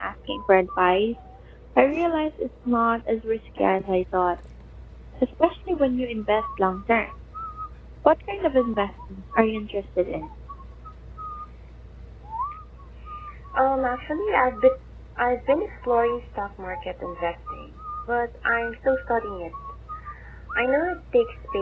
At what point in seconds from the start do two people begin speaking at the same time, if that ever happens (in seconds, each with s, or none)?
none